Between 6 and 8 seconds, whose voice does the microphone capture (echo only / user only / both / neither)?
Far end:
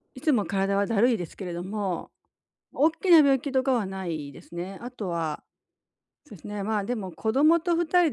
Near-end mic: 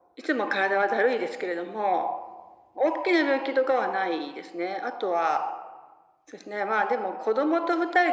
echo only